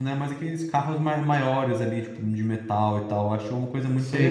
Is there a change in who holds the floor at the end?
Yes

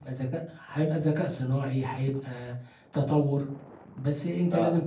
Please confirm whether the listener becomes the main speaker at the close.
No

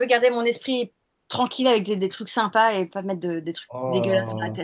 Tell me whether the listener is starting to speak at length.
Yes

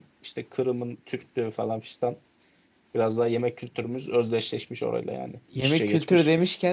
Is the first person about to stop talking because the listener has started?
Yes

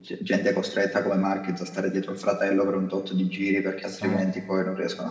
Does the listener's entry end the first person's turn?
No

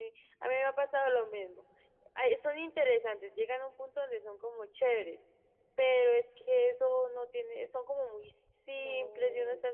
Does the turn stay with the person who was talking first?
Yes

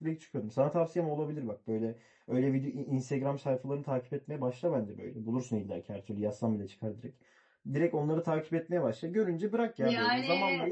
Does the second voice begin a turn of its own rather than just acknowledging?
No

